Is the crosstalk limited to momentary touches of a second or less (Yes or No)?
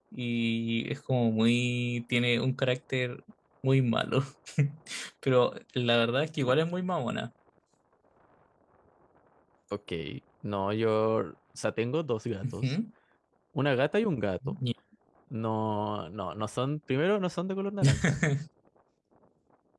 Yes